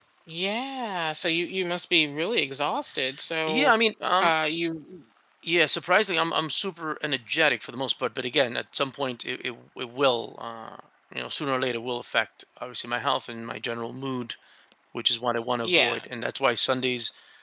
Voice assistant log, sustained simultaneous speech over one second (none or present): none